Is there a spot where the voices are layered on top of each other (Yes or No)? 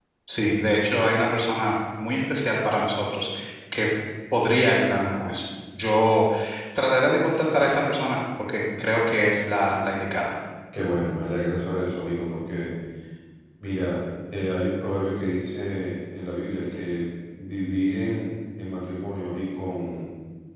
No